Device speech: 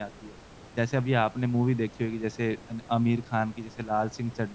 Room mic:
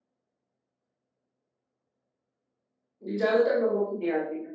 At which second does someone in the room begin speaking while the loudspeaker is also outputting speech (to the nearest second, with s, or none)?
3 s